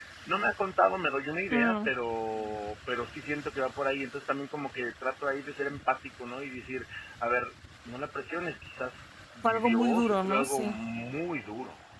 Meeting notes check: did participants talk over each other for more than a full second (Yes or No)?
Yes